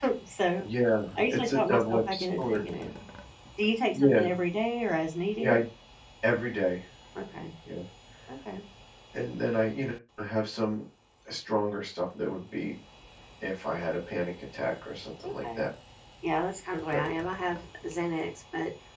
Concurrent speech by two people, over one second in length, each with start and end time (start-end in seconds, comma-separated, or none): 1.2-2.6